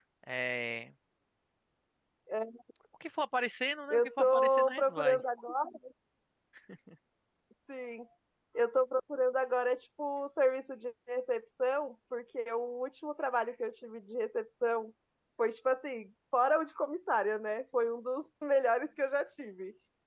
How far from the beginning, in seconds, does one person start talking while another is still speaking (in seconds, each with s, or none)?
3.9 s